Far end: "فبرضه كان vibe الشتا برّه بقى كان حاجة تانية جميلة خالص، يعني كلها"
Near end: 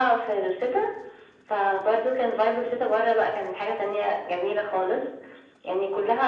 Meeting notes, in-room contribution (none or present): none